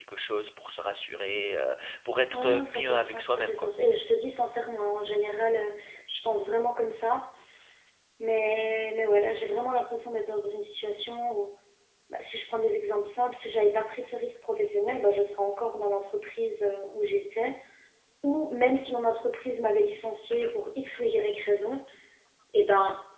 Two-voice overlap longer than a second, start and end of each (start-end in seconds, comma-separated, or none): 2.3-3.7